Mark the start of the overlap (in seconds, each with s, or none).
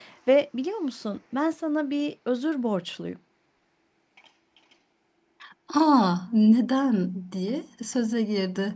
none